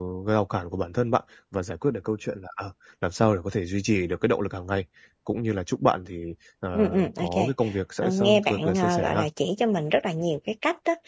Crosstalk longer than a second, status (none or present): present